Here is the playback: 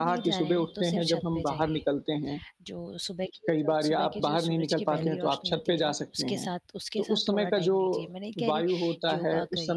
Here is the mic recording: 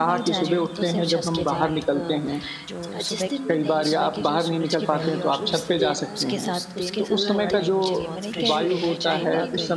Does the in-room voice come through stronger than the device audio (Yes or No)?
No